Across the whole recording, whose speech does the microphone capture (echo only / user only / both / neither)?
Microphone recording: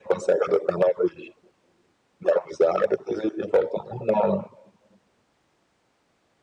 echo only